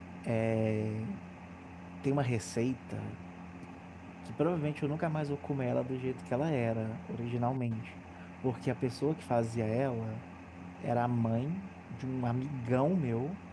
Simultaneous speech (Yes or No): No